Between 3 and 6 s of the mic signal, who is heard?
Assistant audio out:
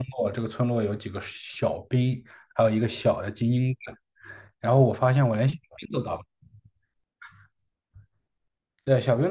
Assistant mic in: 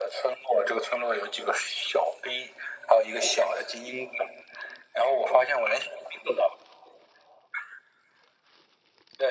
echo only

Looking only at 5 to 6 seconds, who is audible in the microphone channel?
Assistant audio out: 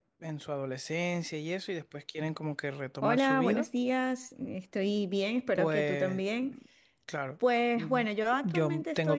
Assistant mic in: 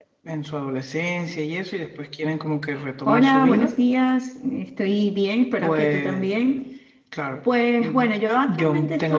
echo only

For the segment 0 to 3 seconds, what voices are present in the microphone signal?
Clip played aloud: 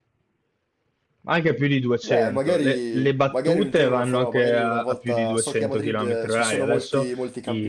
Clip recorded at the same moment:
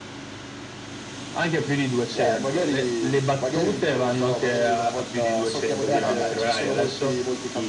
echo only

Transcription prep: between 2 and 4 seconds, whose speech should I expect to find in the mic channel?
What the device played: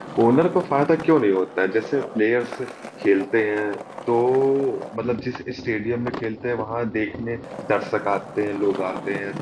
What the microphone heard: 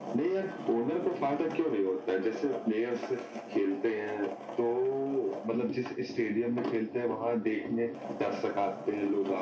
echo only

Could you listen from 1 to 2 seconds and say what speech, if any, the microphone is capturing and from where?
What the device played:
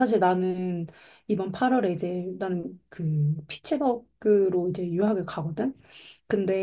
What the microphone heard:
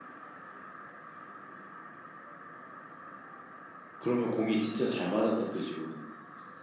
neither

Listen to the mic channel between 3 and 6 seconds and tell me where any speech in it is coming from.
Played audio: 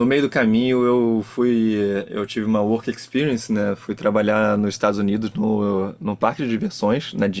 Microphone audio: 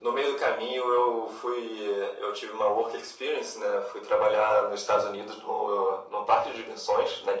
echo only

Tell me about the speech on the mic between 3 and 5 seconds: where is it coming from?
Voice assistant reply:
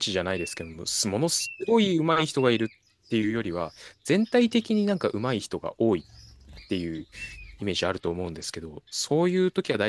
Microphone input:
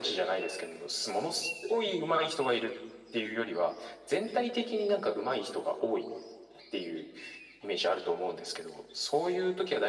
echo only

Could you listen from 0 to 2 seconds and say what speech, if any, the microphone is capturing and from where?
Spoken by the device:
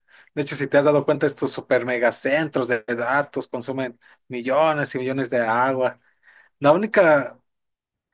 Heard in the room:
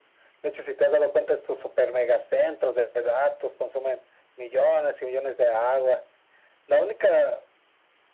echo only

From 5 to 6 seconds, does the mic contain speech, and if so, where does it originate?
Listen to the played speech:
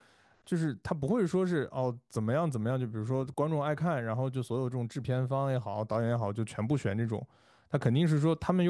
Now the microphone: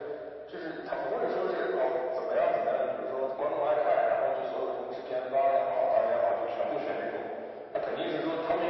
echo only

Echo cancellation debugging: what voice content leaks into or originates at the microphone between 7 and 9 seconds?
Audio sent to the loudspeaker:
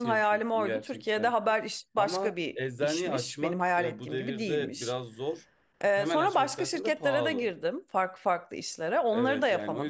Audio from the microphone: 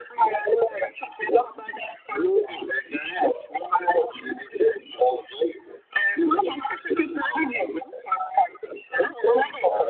echo only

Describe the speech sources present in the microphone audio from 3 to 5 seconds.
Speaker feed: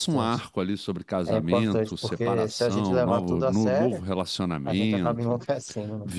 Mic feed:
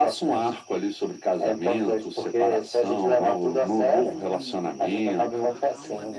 both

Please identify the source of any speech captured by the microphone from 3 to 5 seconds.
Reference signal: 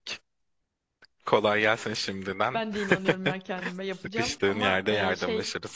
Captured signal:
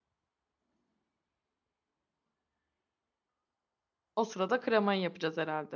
user only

